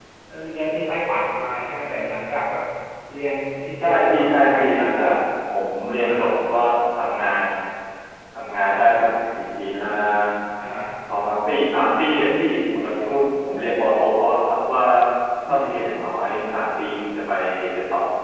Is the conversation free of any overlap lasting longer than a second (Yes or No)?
No